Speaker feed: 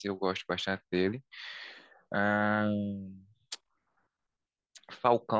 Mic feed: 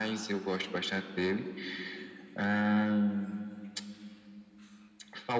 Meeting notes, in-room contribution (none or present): none